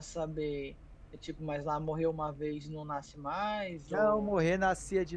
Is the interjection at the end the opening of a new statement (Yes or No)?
Yes